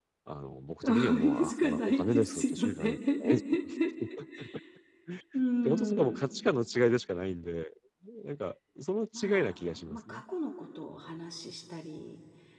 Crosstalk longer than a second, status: present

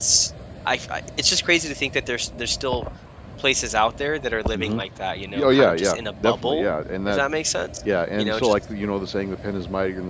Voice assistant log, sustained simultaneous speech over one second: present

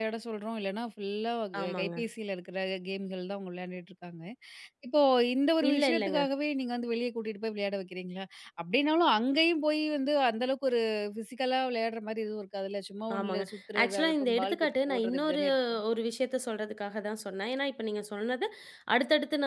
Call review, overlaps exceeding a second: present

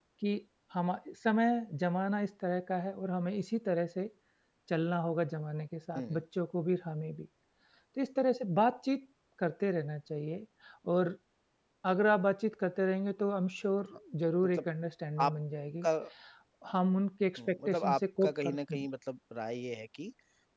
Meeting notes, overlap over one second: present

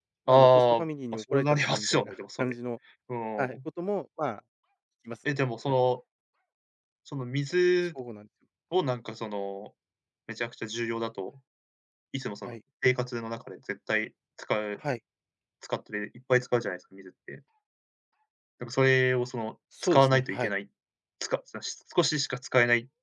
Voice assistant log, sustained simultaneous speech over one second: present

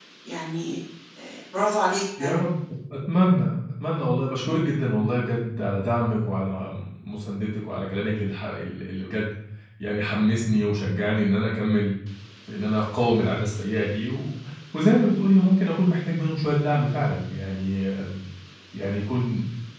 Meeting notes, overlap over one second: none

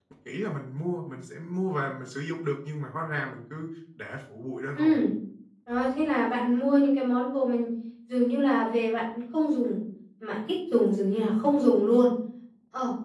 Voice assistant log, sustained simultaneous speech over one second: none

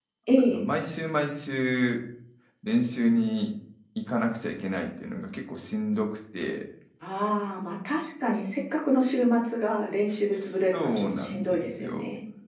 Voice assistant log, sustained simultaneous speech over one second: present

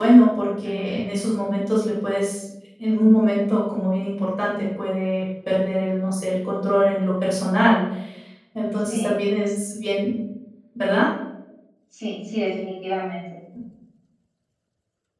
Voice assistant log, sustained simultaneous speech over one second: none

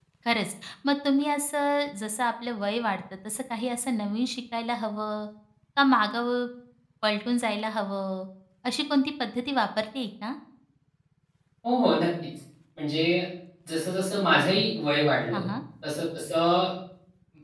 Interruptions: none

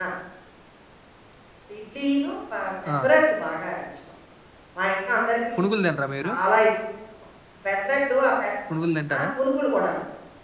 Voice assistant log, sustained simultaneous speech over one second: none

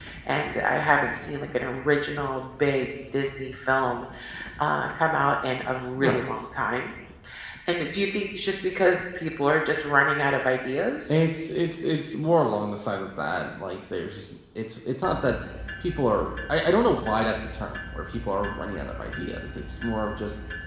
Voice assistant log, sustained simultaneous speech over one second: none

